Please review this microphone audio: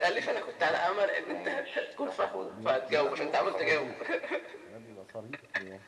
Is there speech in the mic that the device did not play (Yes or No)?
Yes